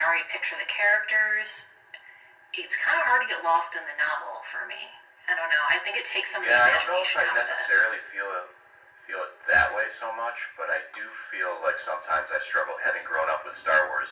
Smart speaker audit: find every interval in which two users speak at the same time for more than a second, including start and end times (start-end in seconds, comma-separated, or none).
6.4-7.7